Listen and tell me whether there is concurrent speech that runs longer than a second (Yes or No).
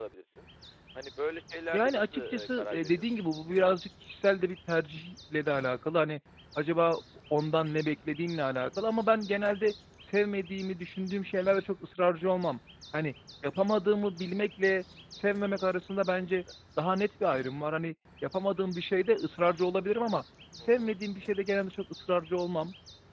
Yes